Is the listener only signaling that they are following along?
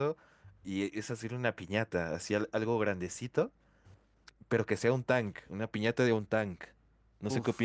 No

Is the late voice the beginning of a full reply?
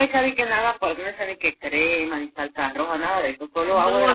Yes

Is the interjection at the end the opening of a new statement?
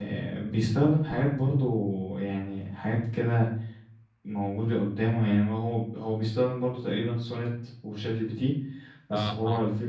No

